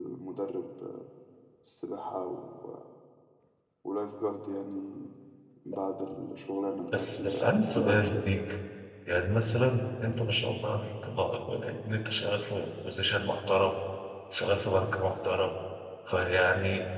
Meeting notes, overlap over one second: present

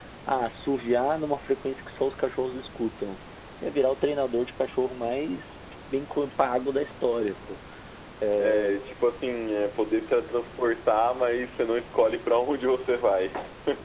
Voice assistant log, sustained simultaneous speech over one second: none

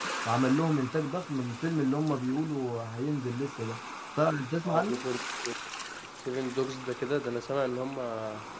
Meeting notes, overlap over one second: none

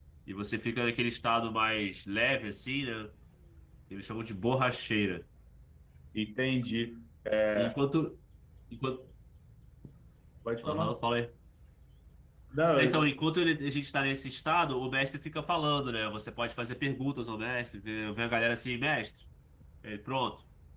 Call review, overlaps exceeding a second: none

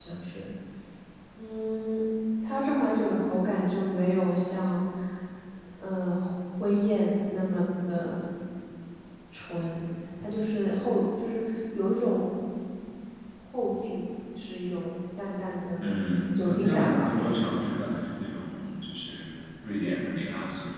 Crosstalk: present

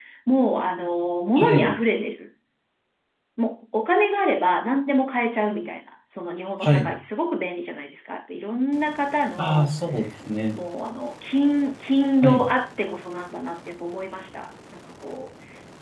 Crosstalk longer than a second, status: none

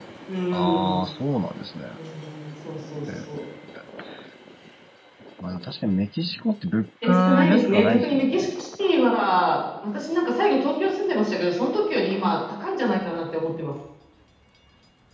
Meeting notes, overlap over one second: present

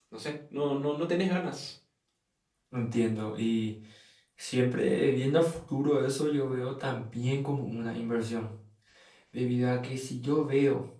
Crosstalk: none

